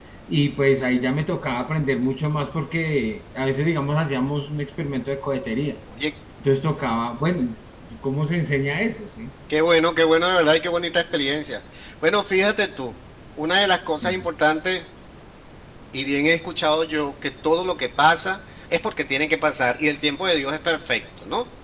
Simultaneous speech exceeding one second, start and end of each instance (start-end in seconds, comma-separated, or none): none